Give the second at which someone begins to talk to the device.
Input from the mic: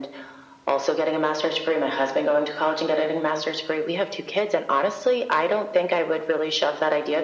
none

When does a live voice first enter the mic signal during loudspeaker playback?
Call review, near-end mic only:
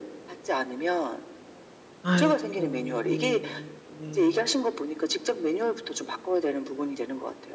2.0 s

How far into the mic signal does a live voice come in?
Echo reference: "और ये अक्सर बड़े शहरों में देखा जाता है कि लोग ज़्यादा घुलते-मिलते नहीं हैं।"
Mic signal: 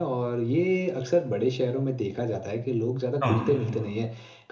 3.2 s

